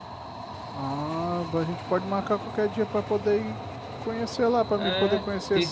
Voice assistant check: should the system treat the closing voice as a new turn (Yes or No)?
Yes